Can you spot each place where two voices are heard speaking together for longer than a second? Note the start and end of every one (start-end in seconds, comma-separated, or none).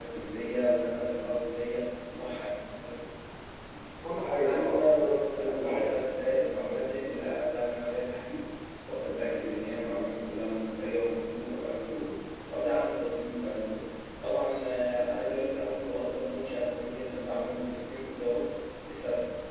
4.4-5.9